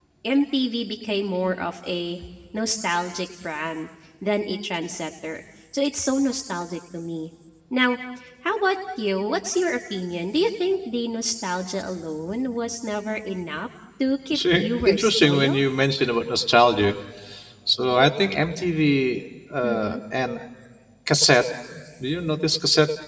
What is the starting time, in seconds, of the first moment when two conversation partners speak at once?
14.3 s

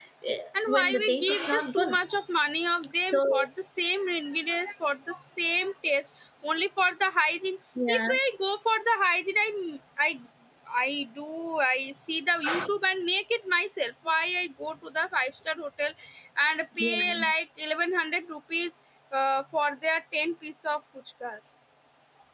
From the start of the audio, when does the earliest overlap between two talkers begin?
0.7 s

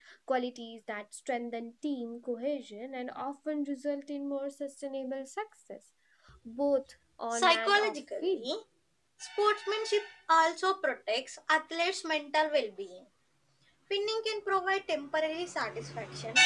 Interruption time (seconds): 7.3 s

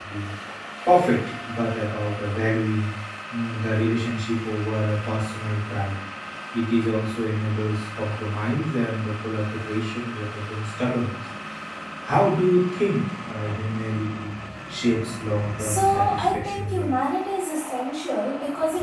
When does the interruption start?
15.6 s

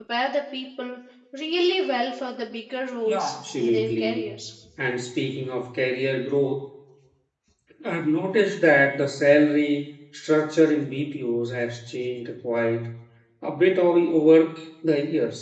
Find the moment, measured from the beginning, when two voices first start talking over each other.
3.1 s

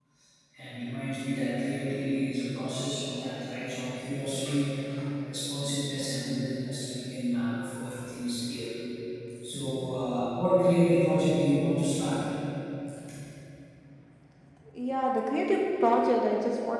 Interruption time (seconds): none

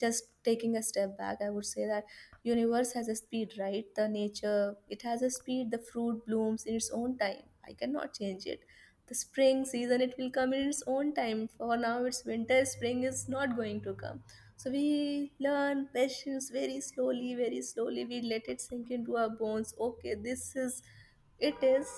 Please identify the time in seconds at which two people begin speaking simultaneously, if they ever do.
none

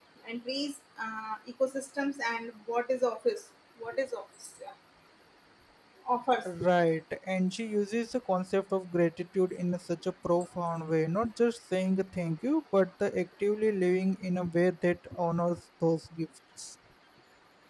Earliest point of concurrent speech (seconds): none

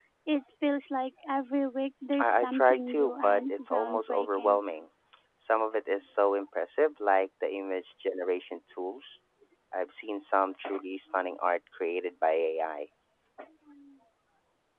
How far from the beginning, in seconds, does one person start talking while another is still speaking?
2.1 s

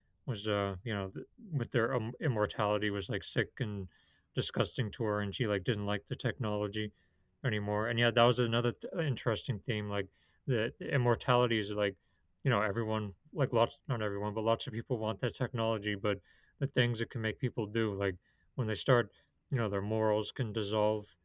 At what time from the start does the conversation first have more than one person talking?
none

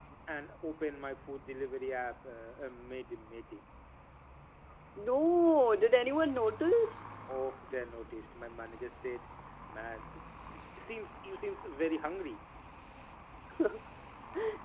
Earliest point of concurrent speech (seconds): none

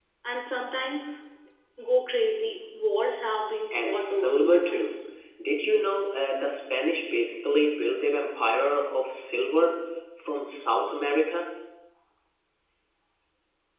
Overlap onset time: 3.7 s

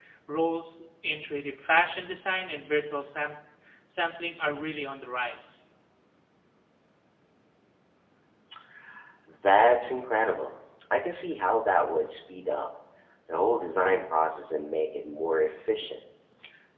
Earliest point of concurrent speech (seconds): none

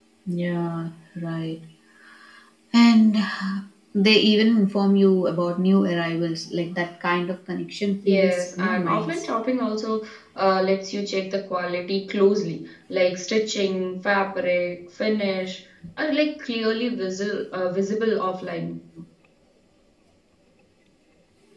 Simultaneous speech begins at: 8.0 s

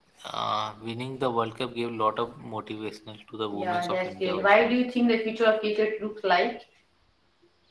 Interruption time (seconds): 3.5 s

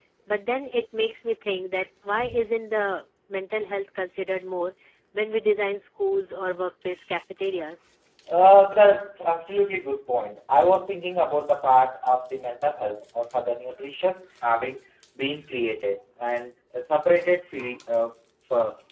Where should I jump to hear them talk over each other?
none

